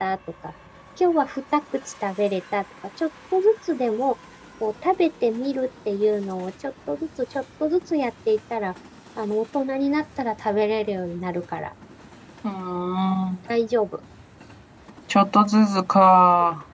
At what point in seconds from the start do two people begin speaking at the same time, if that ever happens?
none

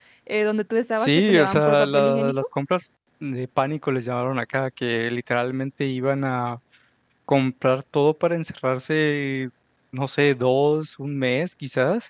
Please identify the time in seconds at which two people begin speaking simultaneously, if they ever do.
1 s

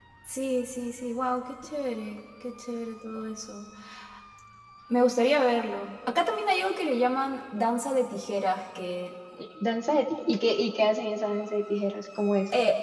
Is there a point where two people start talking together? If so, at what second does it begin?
none

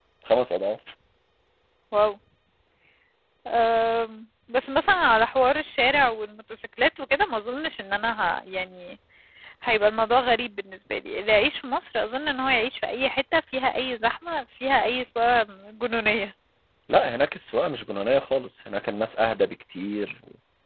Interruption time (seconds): none

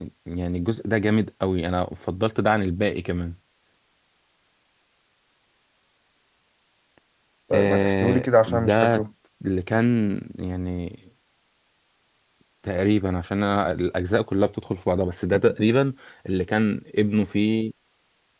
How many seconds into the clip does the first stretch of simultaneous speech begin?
8 s

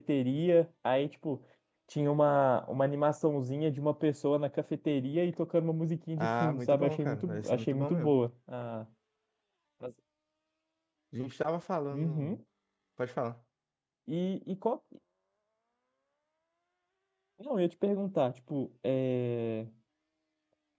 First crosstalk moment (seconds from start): 6 s

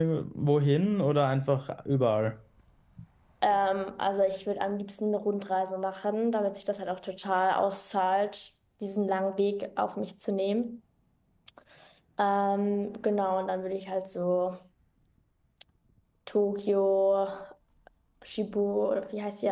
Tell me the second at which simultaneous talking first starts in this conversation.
none

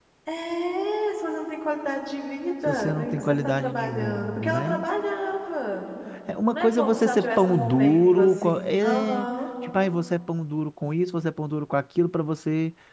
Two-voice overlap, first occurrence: 3 s

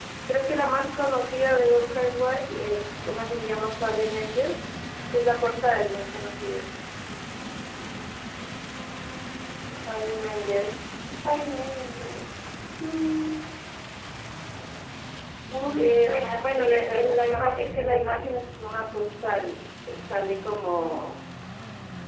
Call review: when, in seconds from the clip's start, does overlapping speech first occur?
16 s

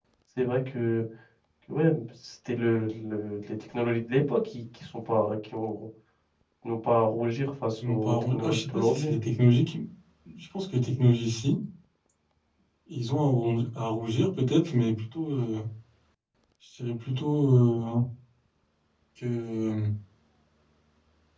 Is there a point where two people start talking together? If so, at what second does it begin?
8 s

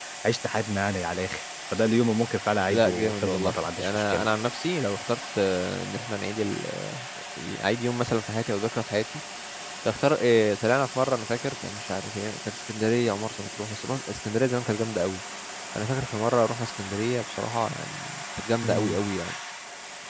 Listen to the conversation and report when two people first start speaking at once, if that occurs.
3 s

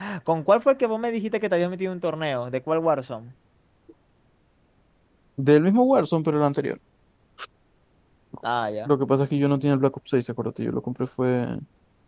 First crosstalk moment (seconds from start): none

